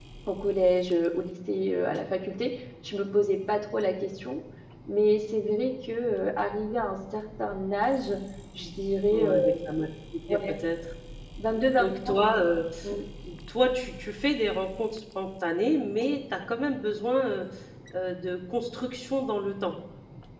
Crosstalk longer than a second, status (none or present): none